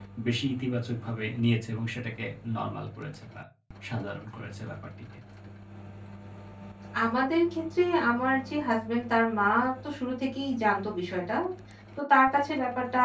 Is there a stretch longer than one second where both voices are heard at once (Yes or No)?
No